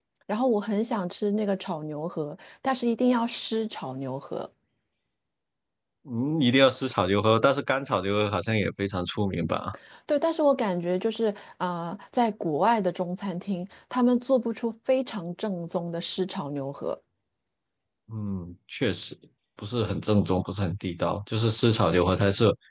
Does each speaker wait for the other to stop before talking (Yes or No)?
Yes